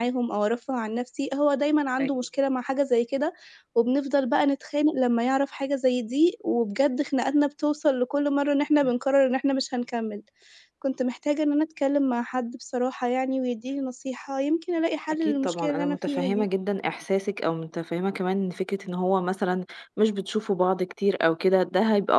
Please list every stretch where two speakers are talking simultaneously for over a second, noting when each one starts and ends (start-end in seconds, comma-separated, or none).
15.2-16.4